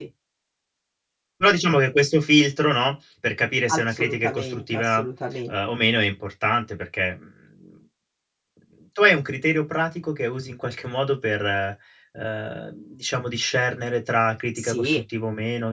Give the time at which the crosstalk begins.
3.7 s

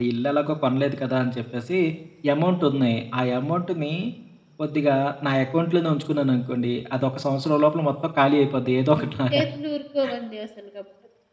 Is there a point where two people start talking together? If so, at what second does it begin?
none

